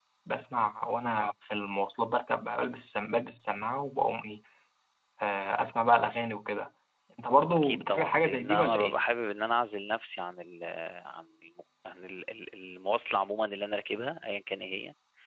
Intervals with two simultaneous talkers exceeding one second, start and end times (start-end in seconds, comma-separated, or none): 7.5-9.0